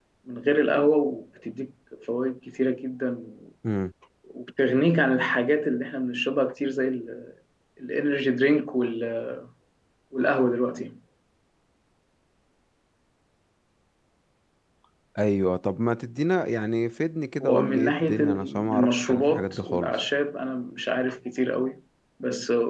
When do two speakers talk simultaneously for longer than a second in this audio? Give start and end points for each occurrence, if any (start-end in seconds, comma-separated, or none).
17.4-19.9